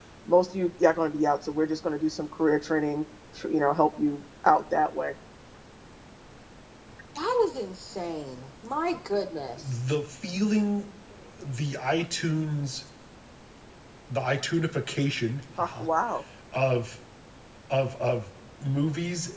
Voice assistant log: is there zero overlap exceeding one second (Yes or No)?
Yes